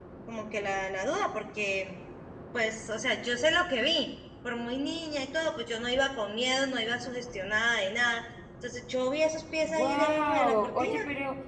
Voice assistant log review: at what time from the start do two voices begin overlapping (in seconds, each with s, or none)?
9.6 s